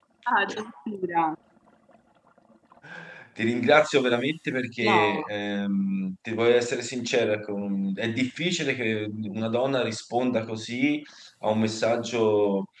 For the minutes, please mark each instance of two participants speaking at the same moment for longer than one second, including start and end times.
none

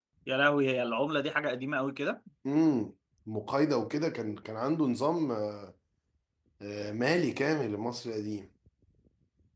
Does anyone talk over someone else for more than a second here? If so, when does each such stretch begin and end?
none

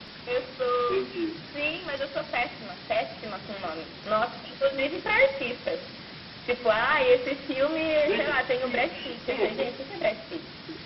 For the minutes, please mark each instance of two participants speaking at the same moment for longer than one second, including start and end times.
8.1-9.6

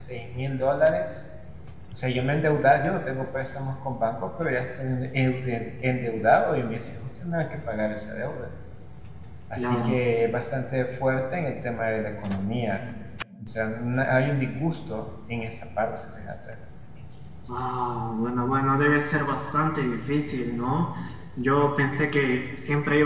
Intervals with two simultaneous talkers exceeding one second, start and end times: none

